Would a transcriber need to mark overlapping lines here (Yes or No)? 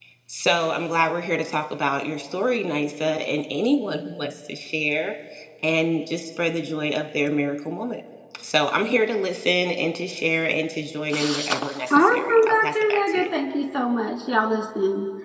Yes